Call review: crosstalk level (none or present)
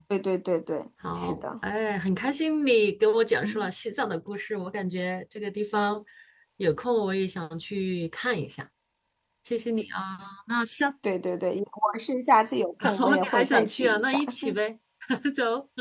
present